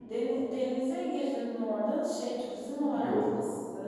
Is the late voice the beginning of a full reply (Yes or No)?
Yes